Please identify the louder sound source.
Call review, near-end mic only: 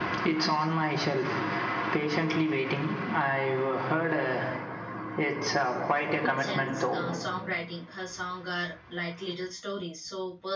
echo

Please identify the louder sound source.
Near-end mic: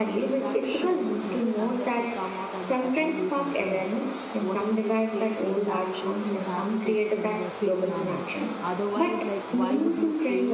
echo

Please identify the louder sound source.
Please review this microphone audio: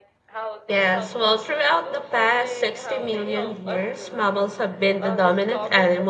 user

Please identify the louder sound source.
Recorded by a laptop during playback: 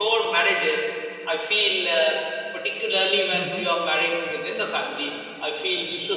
echo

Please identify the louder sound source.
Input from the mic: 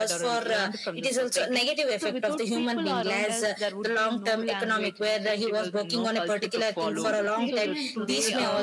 echo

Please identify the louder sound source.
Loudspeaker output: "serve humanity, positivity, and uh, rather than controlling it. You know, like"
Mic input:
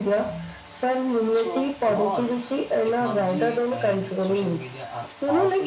echo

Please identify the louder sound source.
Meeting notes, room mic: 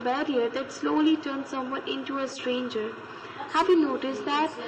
echo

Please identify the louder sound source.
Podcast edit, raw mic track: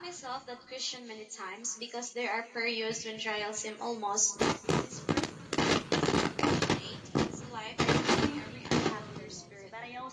echo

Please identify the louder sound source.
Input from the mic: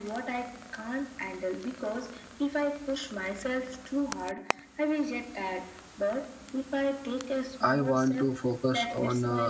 user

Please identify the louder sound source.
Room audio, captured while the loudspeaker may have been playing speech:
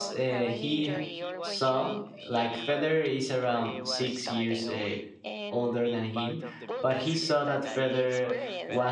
user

